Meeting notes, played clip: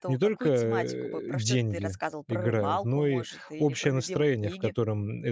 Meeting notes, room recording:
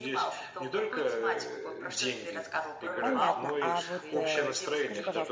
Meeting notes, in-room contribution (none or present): present